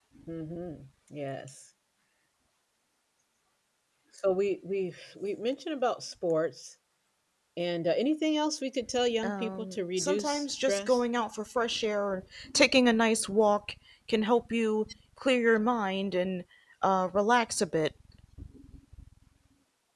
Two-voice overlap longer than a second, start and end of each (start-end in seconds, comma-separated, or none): 9.2-11.0